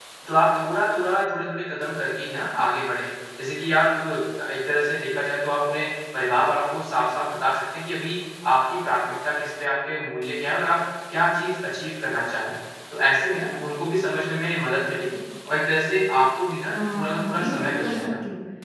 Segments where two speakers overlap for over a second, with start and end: 16.7-18.1

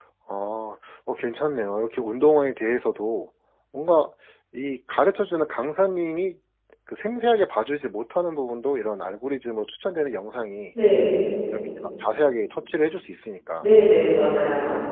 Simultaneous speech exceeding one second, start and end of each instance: none

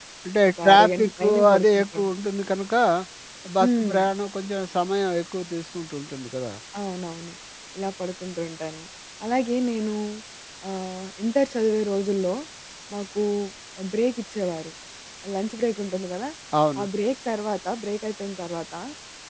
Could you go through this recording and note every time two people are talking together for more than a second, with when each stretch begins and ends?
0.6-2.1

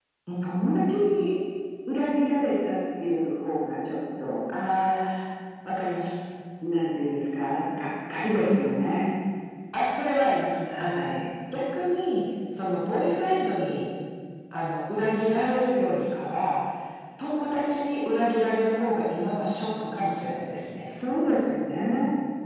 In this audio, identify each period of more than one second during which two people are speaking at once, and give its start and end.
none

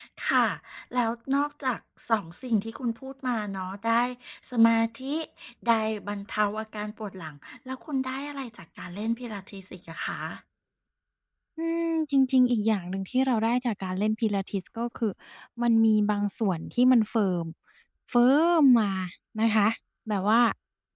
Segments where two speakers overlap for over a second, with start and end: none

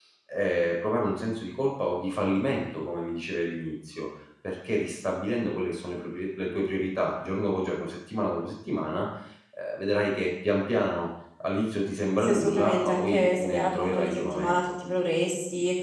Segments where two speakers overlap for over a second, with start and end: 12.2-14.6

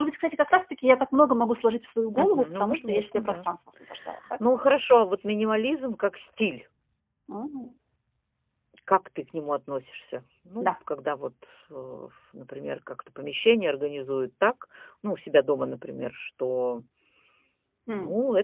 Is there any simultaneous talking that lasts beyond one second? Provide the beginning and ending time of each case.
2.1-3.4

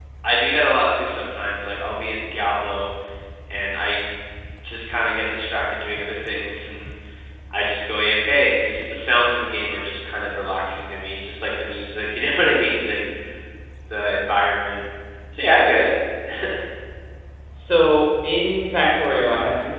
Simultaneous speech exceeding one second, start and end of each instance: none

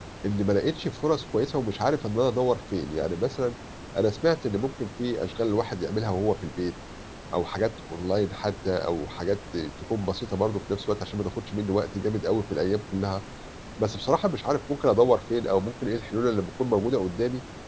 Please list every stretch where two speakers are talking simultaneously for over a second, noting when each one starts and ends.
none

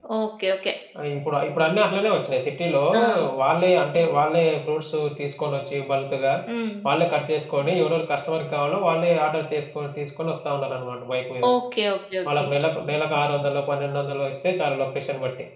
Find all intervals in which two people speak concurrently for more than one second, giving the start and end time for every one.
none

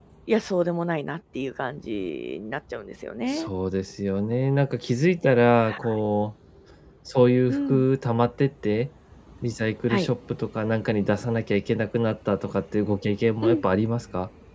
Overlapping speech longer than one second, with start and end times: none

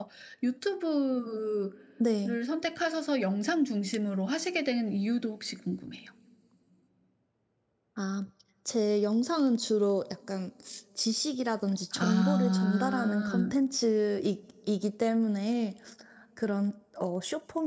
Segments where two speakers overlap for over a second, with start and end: 11.9-13.5

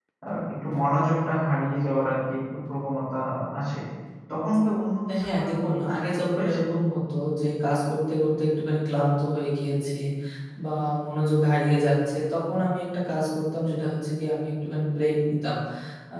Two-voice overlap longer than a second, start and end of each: 5.2-6.6

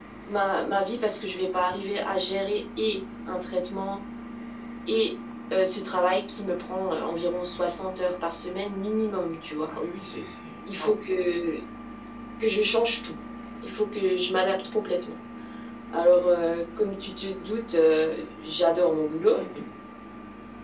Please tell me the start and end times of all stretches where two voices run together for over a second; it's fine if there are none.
none

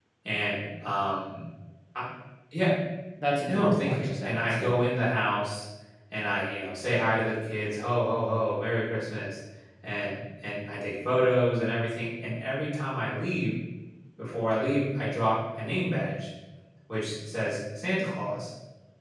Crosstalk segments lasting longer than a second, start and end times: 3.5-4.7

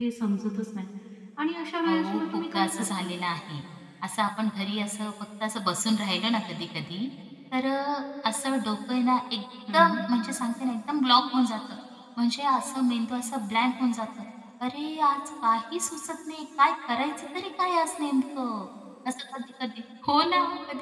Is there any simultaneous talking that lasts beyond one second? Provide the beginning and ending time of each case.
1.9-3.1

